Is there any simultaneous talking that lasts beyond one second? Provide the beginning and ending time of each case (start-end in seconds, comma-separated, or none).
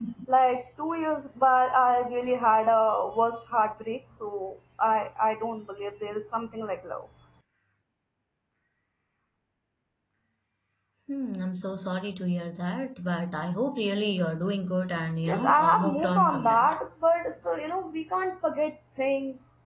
15.3-16.7